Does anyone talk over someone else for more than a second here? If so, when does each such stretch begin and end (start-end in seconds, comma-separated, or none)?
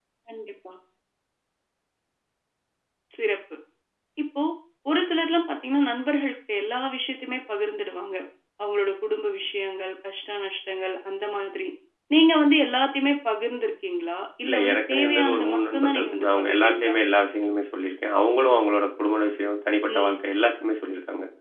14.4-16.9